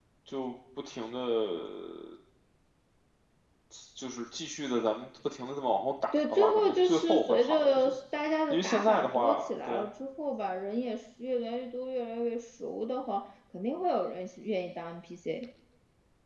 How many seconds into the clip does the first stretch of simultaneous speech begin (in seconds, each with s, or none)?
6.2 s